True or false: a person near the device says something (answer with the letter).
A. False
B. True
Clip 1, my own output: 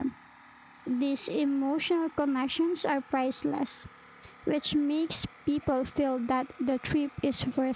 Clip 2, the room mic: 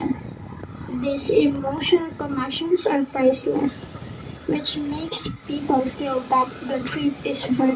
A